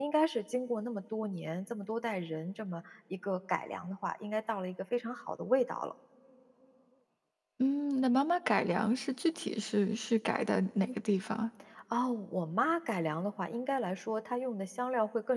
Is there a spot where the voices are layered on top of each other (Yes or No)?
No